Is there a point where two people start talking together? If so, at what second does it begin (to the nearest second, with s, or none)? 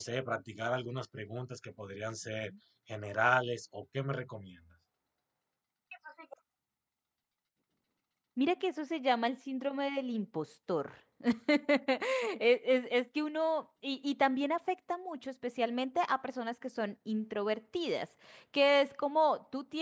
none